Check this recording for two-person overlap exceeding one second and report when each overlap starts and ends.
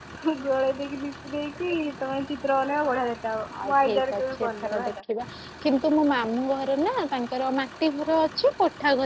3.6-4.9

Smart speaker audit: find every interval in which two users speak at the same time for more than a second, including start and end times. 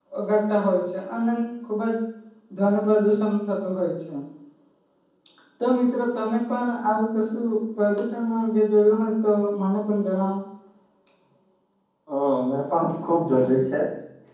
none

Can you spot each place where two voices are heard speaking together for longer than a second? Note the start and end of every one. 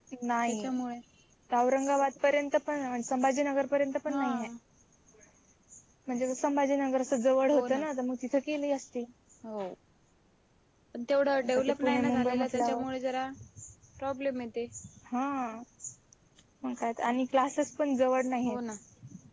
11.3-12.8

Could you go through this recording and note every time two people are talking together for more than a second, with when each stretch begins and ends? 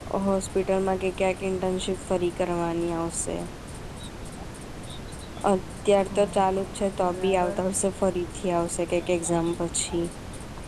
6.0-7.6

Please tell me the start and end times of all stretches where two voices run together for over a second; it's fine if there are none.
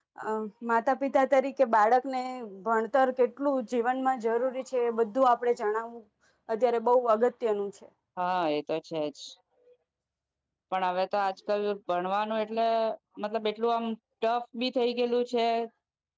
none

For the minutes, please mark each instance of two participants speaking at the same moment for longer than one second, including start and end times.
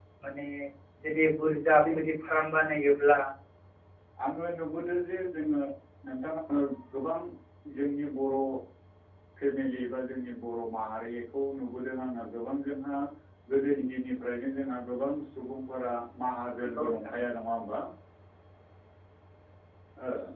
none

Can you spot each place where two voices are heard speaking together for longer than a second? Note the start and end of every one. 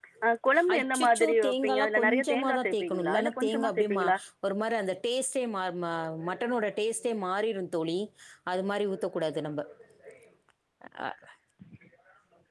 0.7-4.0

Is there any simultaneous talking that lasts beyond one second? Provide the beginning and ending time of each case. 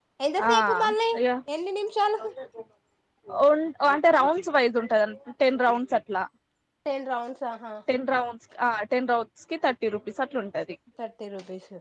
none

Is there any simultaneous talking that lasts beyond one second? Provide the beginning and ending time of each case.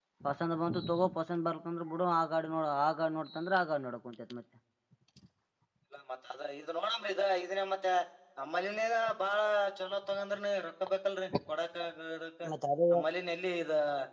none

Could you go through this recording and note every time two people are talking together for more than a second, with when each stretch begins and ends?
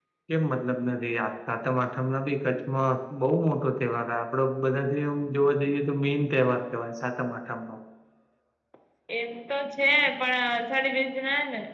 none

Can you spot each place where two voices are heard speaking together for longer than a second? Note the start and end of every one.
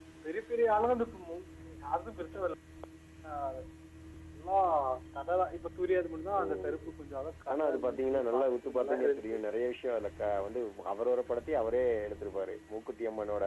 7.5-9.4

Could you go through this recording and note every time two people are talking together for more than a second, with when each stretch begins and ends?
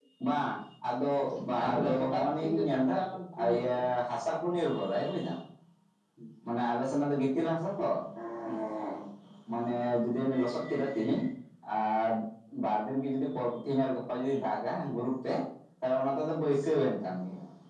1.6-2.9

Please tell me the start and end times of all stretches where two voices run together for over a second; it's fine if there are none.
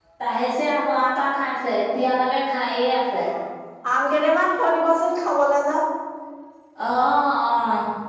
none

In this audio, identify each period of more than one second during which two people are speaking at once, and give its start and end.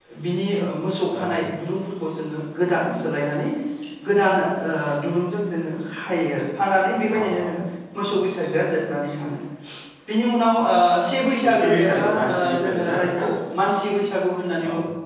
11.4-13.2

